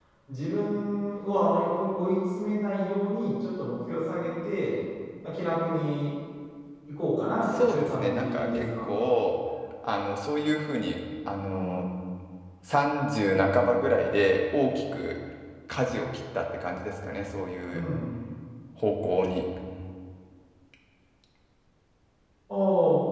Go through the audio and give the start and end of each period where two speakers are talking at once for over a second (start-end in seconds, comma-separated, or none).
7.6-8.9